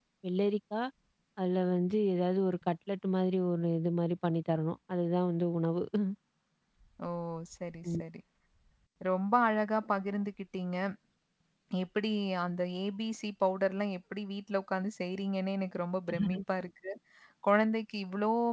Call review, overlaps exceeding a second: none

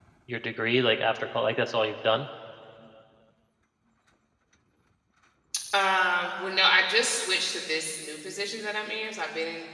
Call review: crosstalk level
none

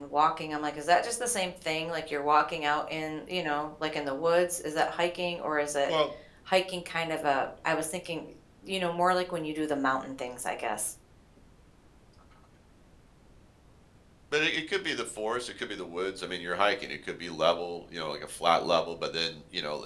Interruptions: none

